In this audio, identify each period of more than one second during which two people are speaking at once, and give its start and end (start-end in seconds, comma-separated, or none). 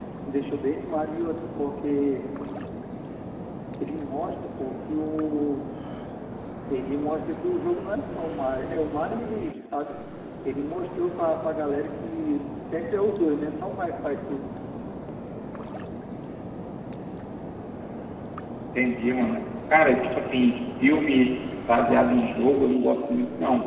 none